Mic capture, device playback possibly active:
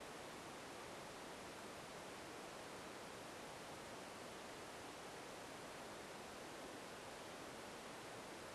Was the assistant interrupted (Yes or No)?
No